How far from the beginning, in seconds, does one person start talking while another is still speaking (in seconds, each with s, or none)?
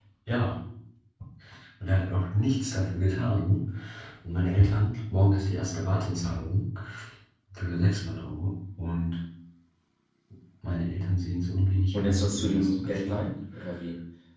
11.9 s